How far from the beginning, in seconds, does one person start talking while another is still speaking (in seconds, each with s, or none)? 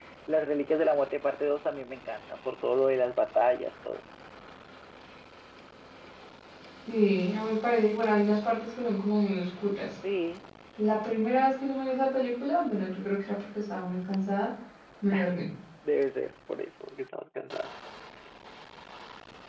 none